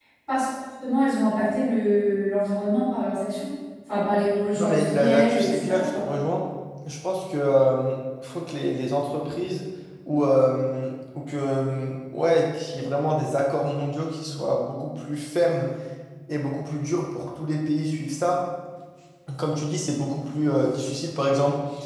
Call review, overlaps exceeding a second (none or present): present